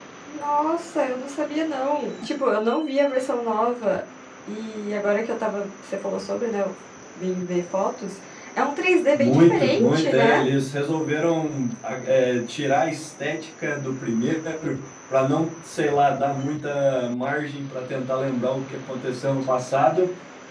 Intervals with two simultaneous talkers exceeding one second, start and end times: 9.2-10.4

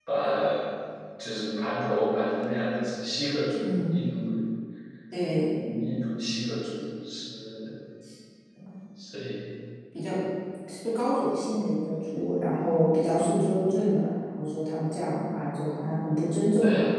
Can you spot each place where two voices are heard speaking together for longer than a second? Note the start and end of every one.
none

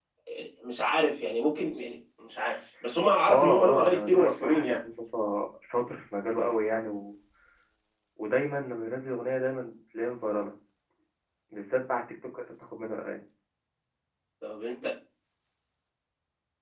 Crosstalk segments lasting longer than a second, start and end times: 3.3-4.8

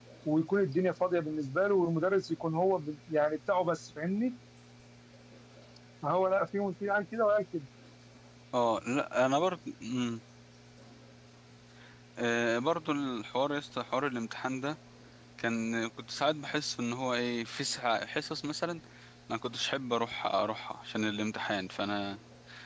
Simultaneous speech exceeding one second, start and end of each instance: none

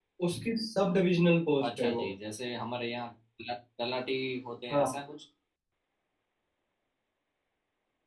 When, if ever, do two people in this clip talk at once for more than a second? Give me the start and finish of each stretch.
none

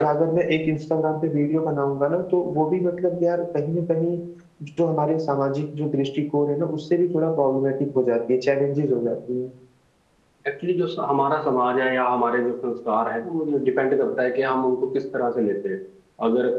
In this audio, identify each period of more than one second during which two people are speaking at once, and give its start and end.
none

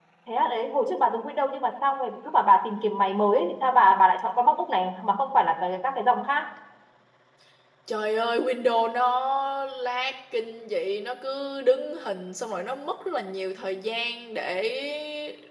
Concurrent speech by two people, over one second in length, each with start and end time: none

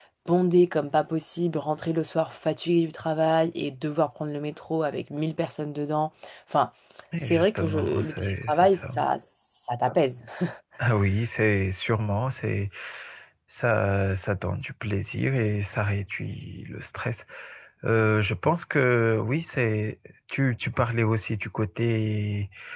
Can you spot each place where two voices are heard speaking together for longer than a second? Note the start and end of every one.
7.2-8.9

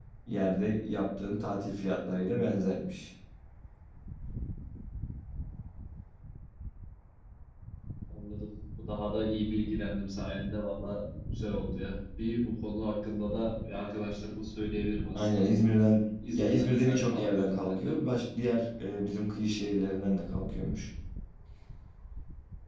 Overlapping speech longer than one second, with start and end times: 16.3-18.1

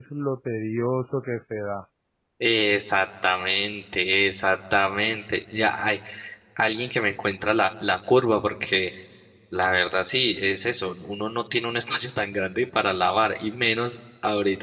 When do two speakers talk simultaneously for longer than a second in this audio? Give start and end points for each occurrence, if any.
none

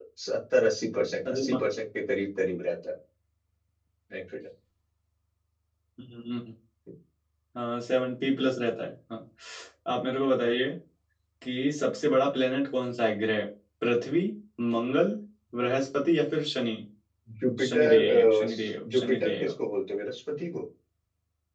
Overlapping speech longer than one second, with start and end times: 17.7-19.5

